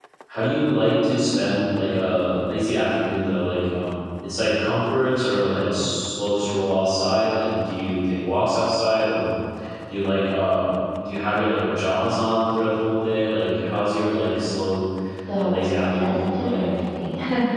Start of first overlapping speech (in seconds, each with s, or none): 15.3 s